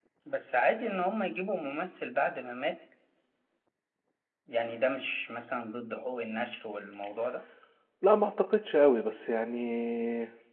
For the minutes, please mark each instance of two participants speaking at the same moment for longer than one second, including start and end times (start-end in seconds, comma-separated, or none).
none